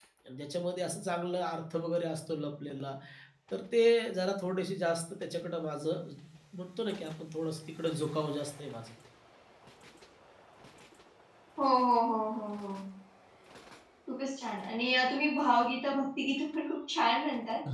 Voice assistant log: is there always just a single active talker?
Yes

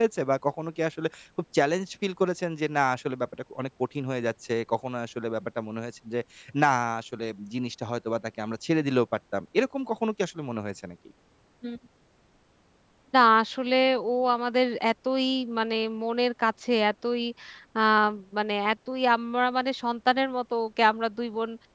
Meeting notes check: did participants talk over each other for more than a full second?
No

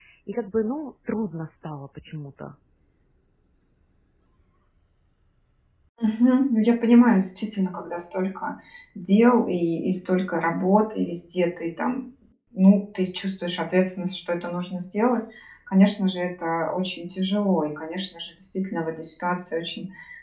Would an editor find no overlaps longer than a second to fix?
Yes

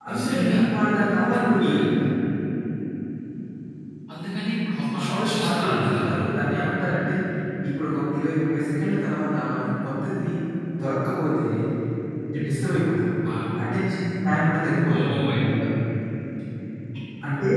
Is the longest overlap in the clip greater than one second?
Yes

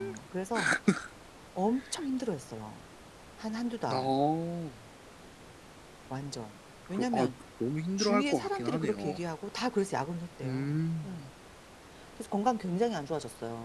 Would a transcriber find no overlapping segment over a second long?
No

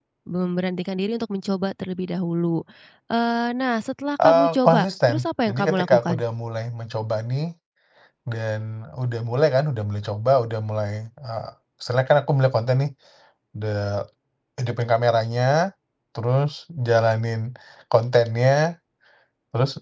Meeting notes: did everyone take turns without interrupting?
No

